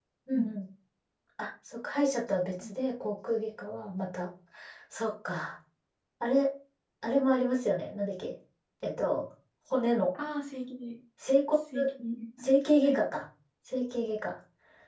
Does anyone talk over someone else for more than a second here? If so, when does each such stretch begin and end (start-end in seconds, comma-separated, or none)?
none